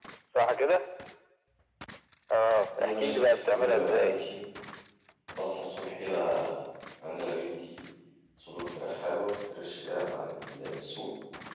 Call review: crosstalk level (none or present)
present